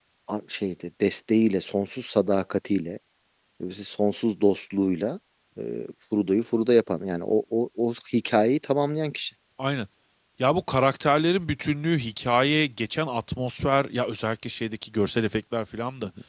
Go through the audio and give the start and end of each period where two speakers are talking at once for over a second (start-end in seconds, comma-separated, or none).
none